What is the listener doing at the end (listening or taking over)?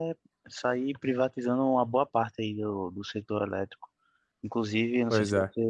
listening